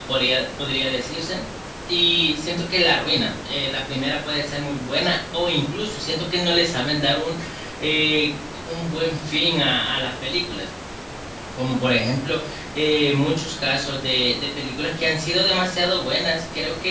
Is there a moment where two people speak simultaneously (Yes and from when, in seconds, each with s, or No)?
No